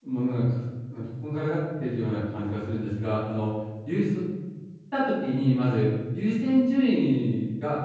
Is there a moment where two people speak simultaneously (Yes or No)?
No